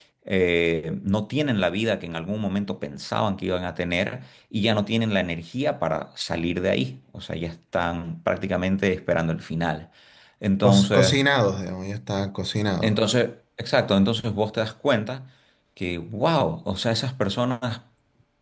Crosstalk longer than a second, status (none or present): none